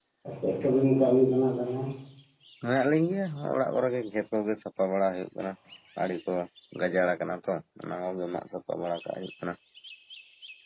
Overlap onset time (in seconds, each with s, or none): none